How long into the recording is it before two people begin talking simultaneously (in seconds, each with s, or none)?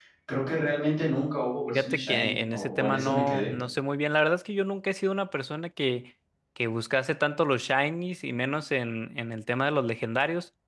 1.7 s